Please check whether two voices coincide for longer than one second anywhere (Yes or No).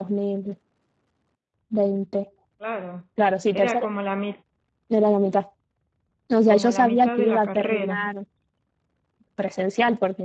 Yes